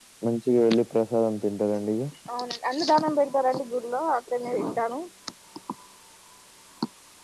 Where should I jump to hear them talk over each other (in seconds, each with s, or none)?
none